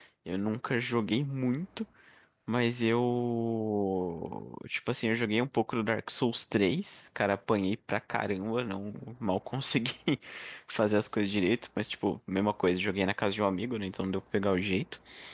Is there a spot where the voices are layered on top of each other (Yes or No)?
No